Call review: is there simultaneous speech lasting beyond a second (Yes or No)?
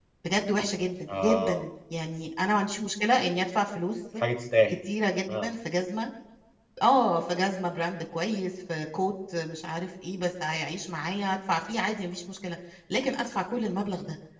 No